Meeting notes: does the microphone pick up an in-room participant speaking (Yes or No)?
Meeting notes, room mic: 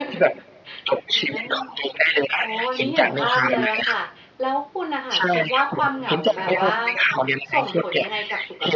Yes